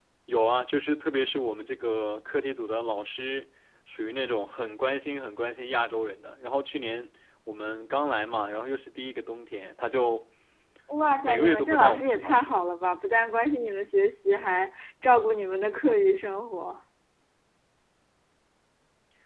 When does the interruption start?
11.2 s

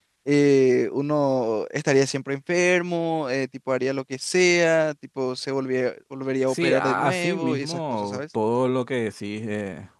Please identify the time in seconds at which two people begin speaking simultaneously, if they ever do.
6.5 s

